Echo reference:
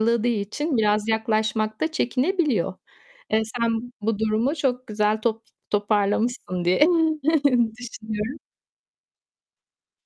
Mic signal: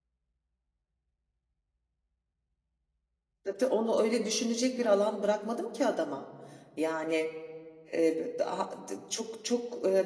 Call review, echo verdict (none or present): none